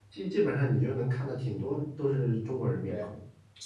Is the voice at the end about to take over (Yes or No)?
Yes